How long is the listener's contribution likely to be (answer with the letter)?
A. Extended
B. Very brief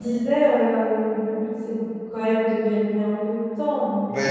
A